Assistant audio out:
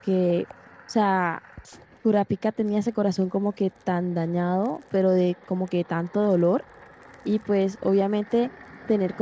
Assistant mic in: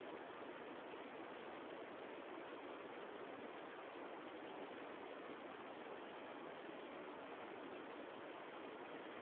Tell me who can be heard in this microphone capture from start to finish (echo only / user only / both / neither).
neither